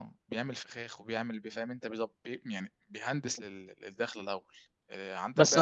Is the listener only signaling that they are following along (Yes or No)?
No